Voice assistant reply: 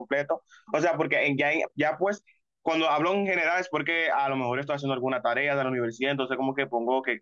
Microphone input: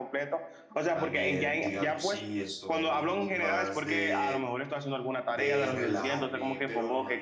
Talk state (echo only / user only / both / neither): both